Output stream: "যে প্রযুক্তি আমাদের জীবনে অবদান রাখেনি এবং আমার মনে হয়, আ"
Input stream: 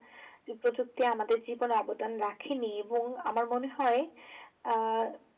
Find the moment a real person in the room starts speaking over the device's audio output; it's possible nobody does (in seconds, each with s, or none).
none